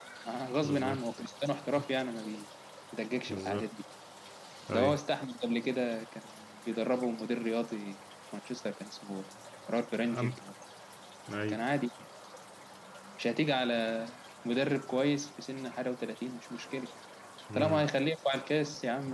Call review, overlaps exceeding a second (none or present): none